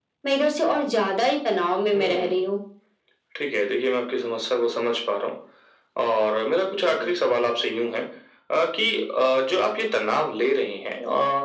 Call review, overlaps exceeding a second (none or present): none